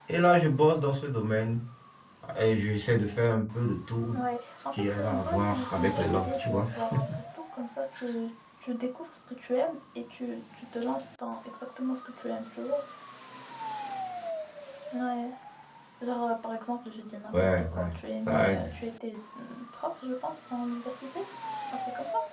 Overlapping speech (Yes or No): Yes